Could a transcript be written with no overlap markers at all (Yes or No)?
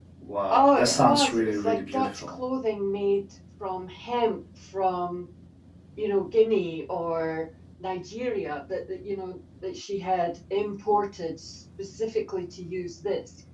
No